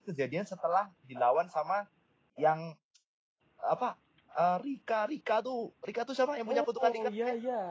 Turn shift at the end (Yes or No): Yes